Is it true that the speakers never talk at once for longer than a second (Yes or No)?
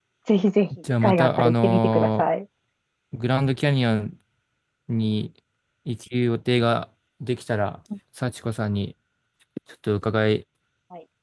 No